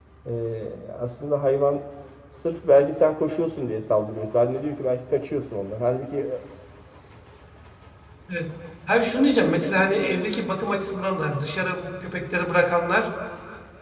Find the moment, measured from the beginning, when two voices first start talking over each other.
none

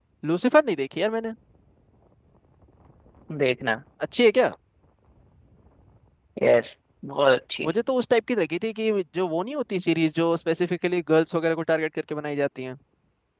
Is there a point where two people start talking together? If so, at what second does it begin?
none

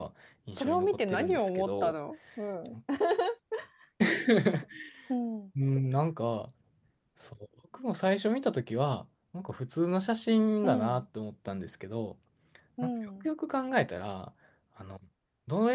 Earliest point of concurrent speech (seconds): 1 s

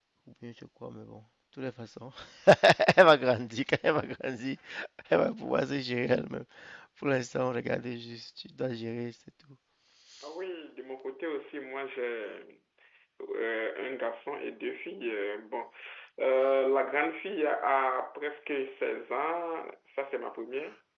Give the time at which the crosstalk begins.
none

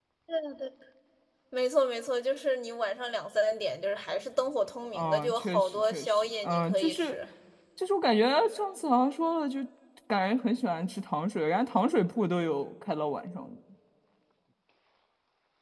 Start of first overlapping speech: 5 s

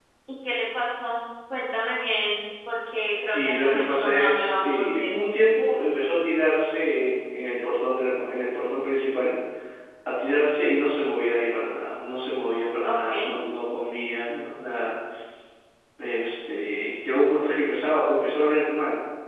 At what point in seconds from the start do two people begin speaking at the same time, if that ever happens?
3 s

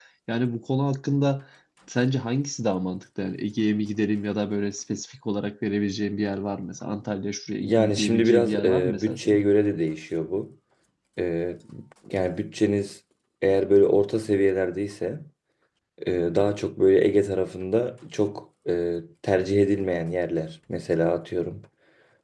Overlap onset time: 8 s

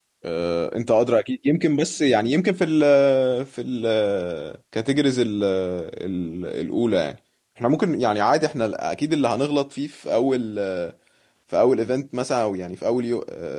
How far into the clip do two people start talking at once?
none

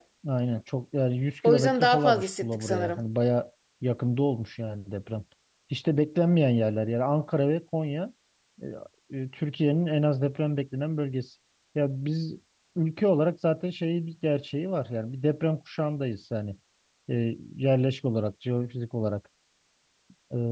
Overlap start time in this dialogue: 1 s

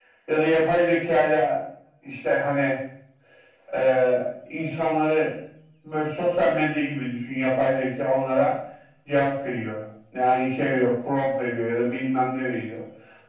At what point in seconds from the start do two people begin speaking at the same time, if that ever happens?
none

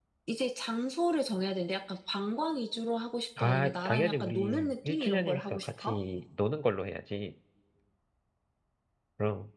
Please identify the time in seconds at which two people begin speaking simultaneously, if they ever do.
3 s

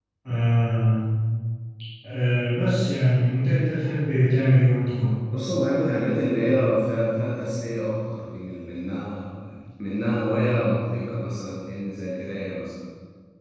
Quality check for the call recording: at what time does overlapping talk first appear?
none

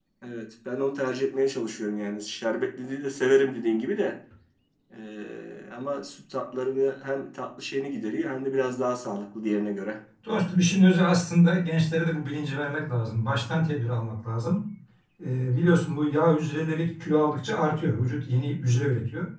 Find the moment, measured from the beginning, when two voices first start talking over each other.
none

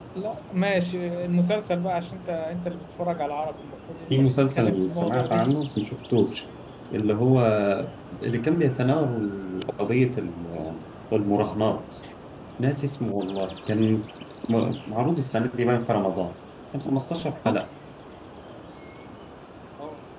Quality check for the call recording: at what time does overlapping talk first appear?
4 s

